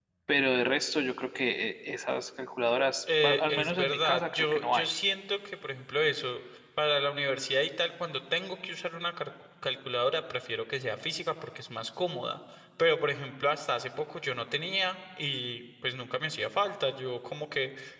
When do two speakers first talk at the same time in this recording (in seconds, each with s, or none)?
3.1 s